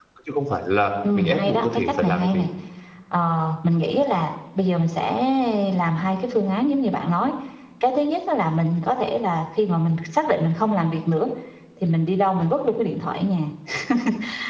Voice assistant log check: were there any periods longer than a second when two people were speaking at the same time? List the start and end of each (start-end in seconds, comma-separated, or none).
1.1-2.5